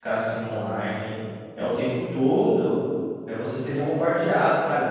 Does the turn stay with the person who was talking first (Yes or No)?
Yes